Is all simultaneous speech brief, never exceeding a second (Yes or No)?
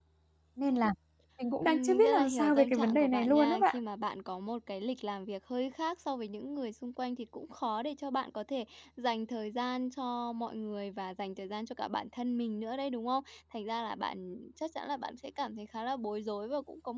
No